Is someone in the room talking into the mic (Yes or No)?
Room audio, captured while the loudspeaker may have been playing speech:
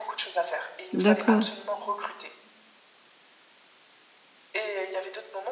Yes